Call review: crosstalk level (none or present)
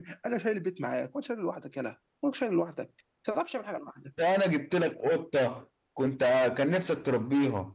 none